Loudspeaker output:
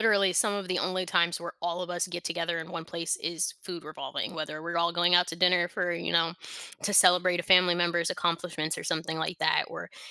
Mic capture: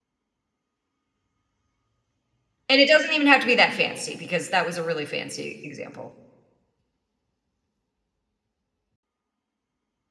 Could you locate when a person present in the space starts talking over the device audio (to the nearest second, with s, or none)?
3 s